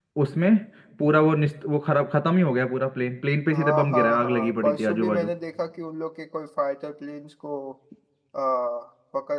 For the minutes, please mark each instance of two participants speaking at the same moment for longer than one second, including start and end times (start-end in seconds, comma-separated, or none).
3.5-5.3